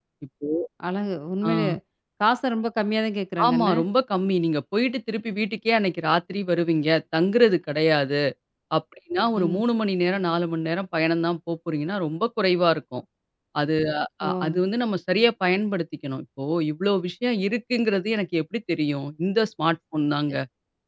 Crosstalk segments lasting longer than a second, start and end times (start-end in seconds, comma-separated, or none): none